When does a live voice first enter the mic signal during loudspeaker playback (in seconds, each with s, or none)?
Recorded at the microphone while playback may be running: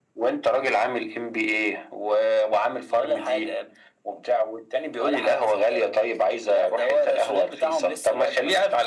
none